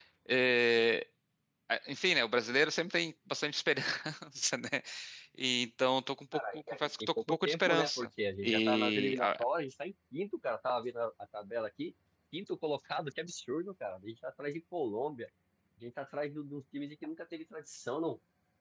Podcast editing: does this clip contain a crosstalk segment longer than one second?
Yes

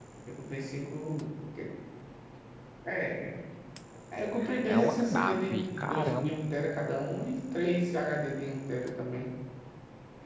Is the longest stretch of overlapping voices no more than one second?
No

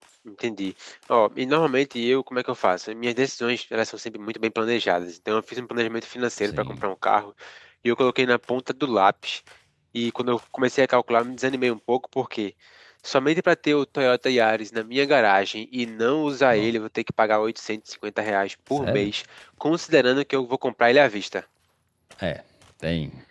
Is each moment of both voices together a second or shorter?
Yes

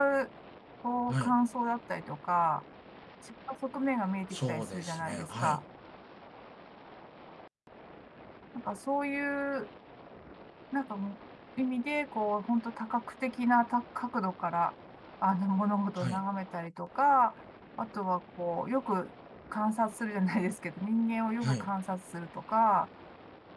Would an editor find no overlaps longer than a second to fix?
No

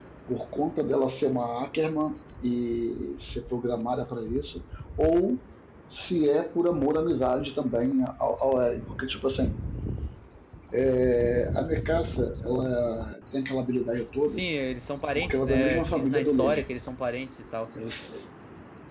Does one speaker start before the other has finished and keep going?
Yes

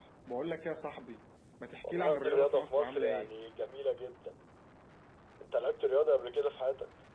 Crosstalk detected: Yes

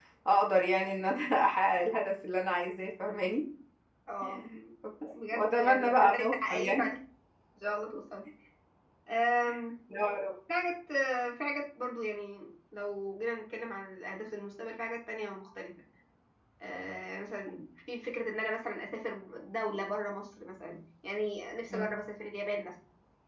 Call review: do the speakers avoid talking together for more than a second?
No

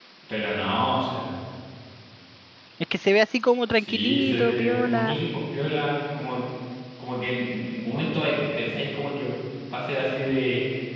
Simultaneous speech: Yes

